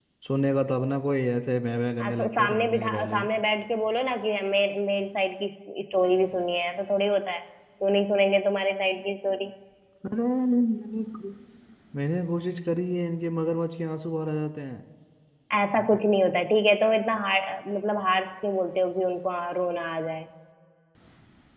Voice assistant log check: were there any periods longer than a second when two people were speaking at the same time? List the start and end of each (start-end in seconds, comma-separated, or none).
2.0-3.3